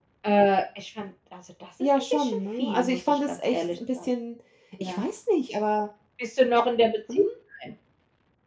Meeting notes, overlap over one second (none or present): present